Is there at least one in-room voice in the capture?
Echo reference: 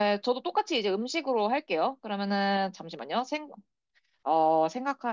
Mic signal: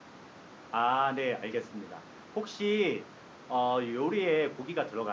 Yes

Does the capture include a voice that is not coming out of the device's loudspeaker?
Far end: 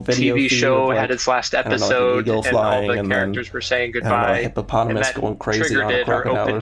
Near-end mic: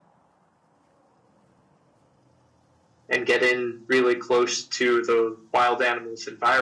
Yes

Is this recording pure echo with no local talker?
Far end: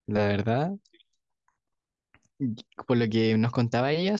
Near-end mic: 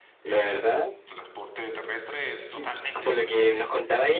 No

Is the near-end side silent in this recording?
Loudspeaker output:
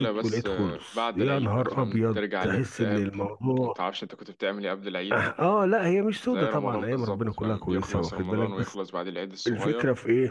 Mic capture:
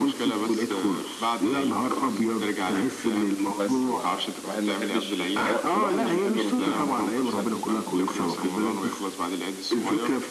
No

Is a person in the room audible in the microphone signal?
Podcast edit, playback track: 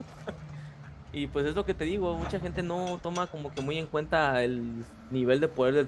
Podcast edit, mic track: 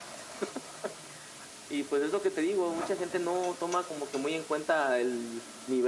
No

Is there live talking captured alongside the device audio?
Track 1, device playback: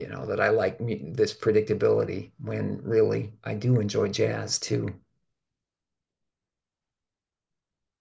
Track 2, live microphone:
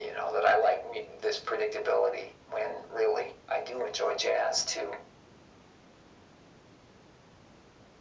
No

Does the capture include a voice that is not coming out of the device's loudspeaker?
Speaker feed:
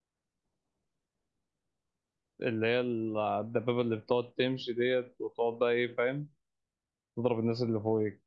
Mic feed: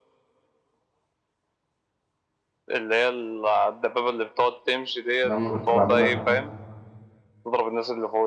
Yes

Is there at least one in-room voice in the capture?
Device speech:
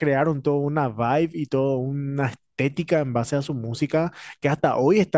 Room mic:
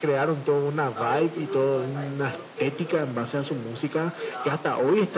Yes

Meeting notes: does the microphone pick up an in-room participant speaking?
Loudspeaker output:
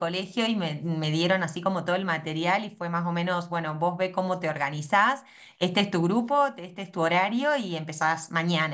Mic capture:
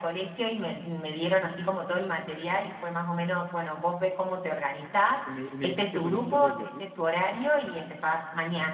Yes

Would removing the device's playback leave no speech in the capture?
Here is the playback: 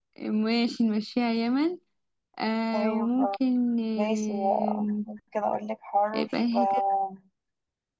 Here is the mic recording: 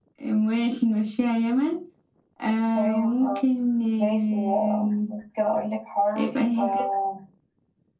Yes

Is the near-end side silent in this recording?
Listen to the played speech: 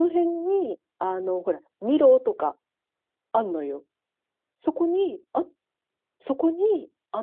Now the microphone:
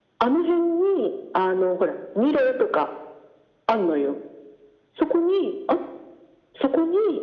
Yes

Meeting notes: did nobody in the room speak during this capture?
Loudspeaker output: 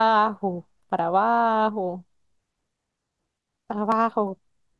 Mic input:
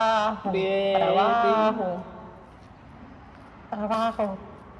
No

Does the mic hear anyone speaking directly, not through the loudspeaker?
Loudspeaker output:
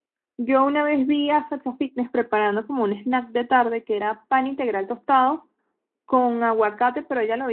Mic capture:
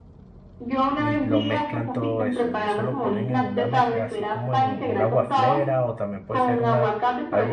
Yes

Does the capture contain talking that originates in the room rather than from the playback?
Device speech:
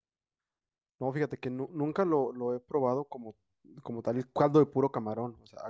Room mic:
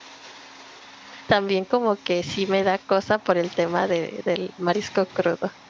Yes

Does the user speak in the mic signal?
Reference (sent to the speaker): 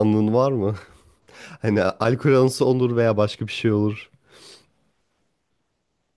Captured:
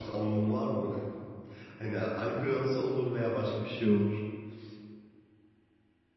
Yes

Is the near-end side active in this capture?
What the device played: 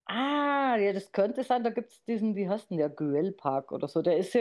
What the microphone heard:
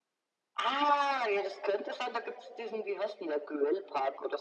No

